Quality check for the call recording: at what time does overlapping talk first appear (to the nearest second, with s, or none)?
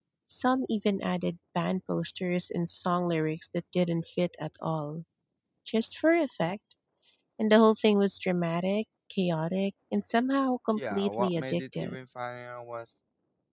11 s